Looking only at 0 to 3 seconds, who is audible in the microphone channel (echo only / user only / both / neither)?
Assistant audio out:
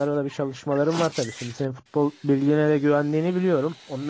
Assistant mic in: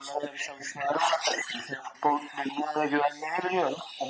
echo only